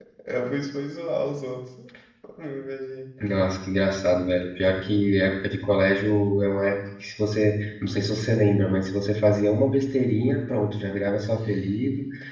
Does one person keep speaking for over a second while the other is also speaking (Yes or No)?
No